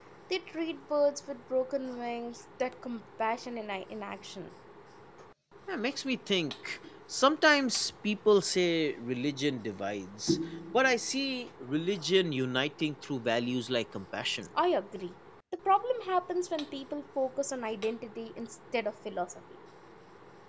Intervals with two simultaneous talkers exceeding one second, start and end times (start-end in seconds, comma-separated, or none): none